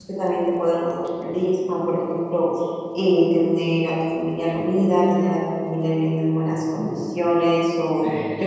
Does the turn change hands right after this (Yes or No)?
No